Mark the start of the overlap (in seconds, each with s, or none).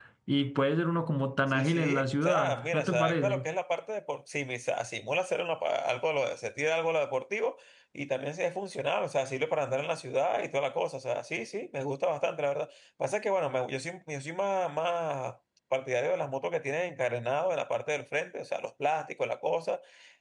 1.5 s